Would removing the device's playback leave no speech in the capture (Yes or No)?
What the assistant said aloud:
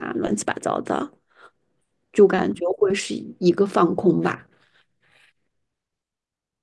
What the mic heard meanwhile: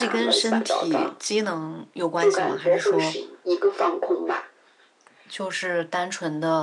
No